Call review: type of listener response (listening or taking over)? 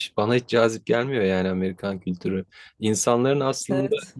listening